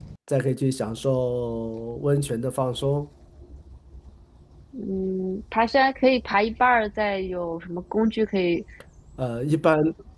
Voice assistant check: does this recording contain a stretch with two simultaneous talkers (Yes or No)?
No